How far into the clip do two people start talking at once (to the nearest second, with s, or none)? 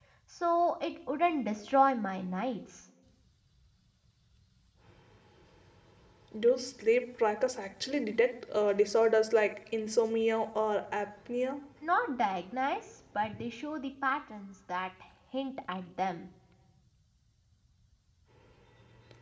none